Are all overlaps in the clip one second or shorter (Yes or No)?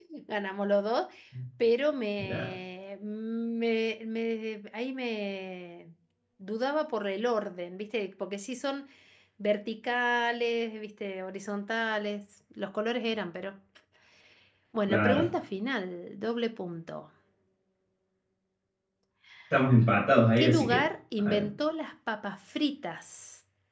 Yes